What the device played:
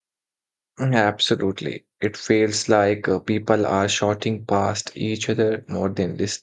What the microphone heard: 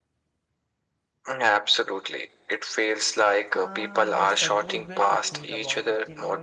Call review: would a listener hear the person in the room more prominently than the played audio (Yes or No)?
No